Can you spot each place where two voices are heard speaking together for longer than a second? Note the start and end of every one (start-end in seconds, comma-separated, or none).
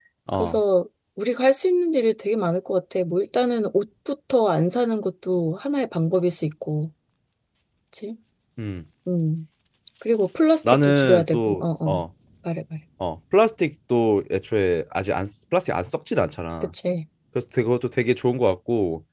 10.6-12.0